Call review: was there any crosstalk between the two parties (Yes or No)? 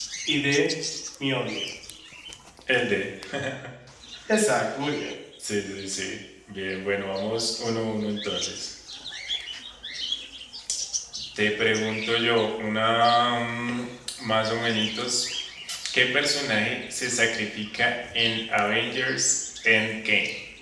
No